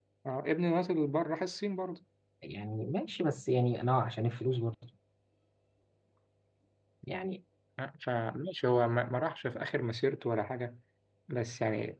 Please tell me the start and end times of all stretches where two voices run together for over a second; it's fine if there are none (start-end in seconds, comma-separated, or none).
none